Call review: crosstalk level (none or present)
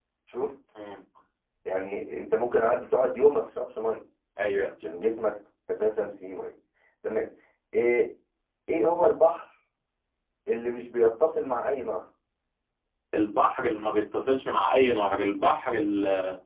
none